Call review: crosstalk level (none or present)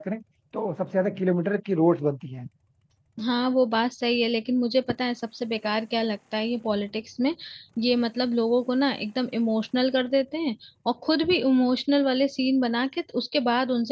none